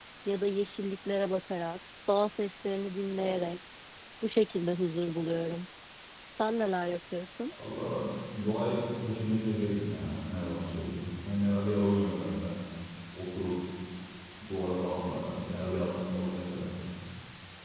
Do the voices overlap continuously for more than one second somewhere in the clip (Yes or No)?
No